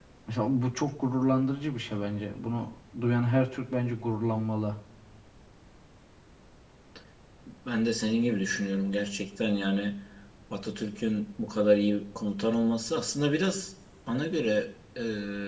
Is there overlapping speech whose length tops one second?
No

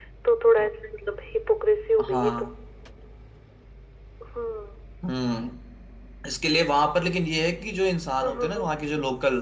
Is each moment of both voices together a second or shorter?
Yes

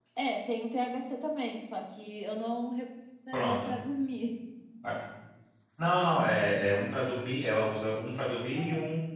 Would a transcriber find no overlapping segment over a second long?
Yes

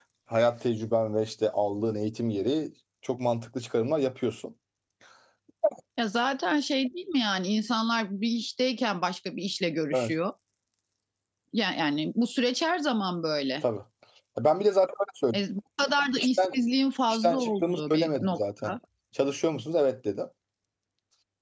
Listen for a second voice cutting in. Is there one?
Yes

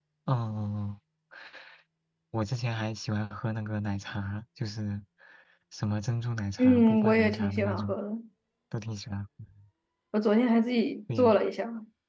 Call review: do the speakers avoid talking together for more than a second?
No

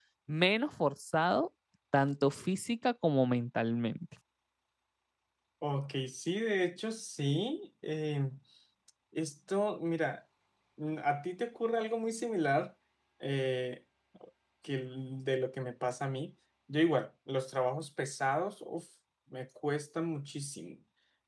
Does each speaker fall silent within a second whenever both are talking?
Yes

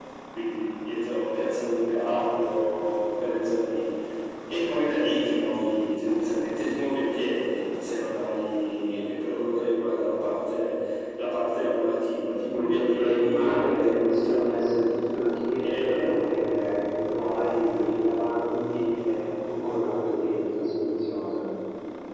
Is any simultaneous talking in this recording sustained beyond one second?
Yes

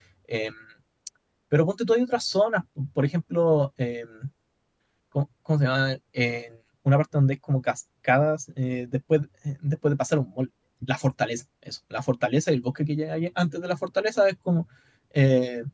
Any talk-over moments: No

